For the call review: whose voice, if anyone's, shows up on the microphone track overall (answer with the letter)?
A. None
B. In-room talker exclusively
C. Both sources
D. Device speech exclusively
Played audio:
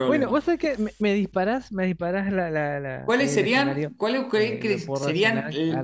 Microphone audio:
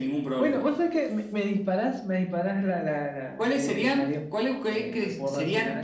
D